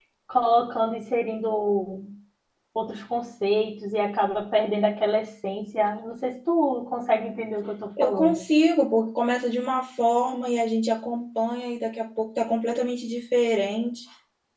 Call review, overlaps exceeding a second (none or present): none